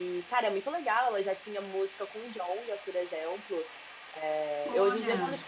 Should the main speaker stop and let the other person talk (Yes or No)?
No